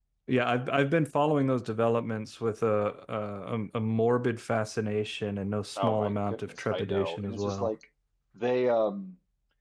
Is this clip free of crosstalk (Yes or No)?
No